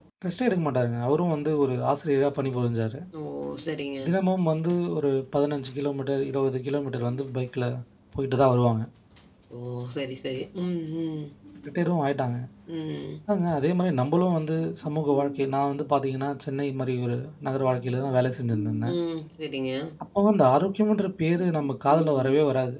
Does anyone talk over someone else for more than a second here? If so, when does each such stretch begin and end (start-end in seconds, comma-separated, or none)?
none